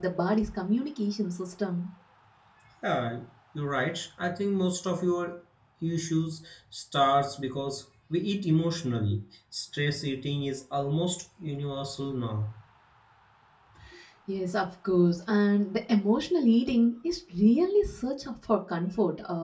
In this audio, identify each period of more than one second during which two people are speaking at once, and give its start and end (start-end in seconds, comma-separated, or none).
none